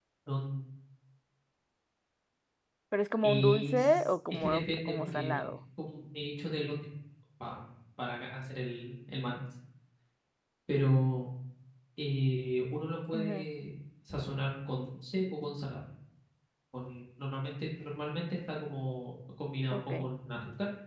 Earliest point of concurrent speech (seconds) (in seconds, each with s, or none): 3.2 s